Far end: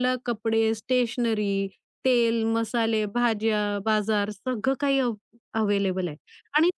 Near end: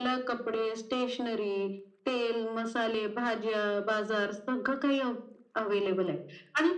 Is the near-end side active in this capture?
No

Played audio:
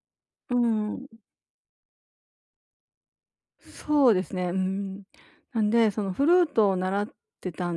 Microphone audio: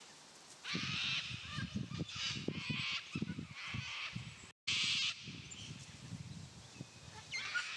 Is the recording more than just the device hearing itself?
No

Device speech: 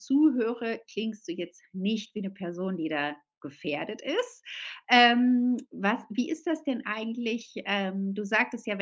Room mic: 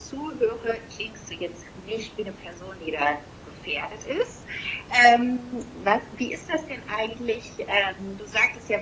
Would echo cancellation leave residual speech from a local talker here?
No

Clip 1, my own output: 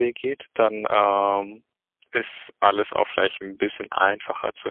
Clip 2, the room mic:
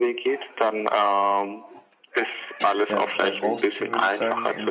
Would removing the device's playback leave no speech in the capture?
No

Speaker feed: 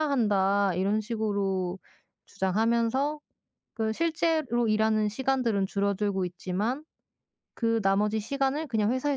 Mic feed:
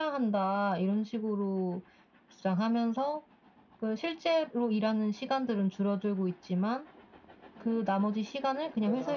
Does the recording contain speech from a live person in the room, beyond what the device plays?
Yes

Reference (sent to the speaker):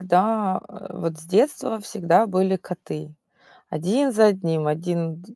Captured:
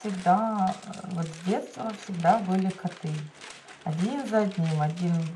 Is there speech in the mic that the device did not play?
No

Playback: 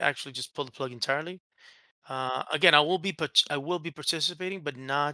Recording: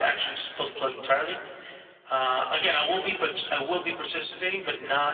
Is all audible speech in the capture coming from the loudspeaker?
Yes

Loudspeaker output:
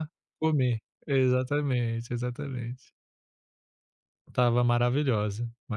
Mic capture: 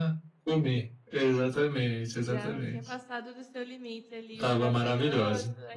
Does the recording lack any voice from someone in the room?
No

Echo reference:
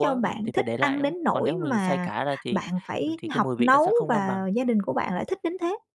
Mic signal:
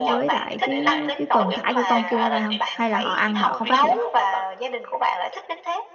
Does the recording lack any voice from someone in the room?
No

